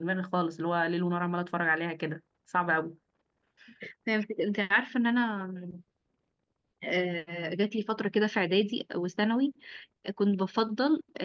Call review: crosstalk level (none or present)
none